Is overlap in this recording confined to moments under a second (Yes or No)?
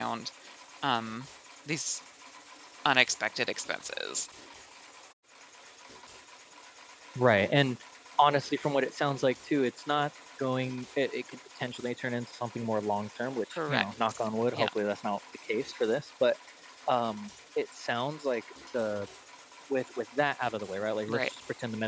Yes